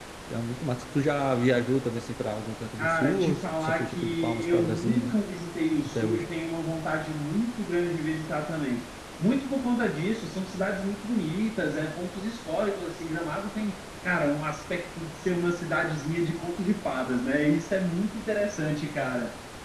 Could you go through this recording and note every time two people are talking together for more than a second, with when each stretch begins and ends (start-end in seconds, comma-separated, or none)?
2.8-5.2